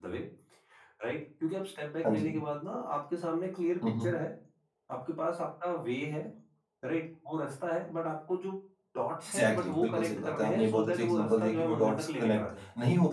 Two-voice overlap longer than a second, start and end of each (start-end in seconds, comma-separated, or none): 9.2-12.6